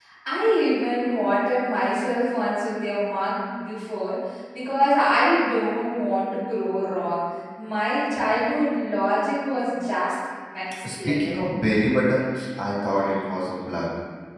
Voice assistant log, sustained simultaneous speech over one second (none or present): none